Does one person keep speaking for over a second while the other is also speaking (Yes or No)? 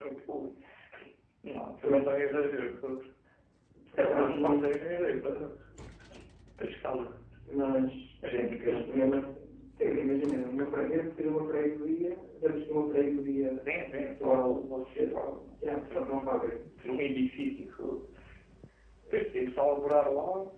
Yes